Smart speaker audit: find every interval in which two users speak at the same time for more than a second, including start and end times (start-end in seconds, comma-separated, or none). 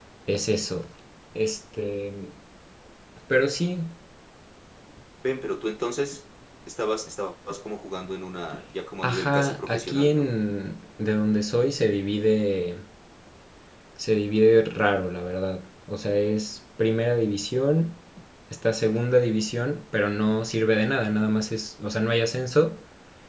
9.0-10.3